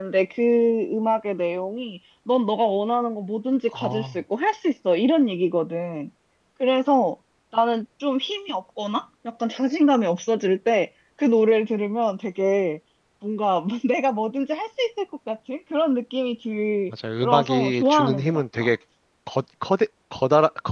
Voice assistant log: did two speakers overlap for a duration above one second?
Yes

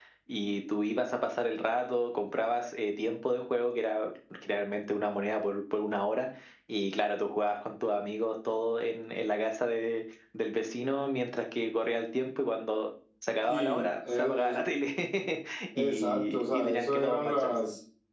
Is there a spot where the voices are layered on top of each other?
Yes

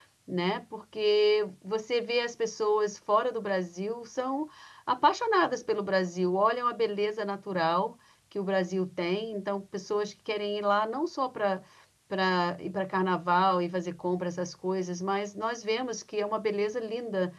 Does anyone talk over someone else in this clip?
No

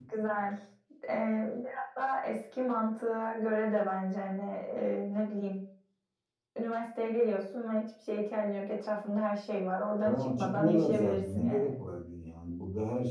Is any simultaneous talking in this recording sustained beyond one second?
Yes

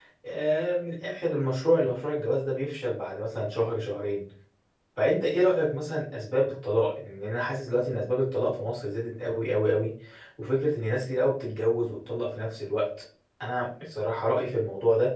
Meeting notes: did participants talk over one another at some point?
No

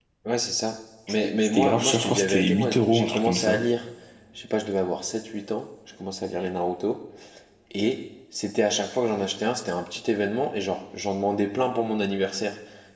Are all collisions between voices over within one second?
No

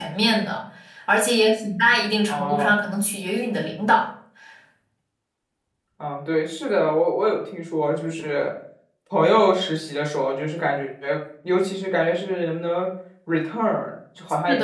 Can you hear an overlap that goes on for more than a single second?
No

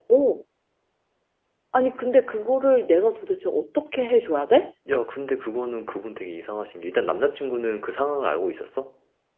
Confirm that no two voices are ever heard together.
Yes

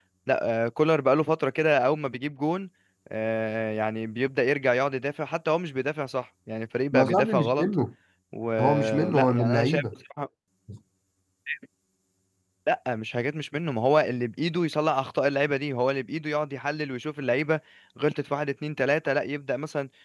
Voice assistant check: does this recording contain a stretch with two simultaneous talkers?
Yes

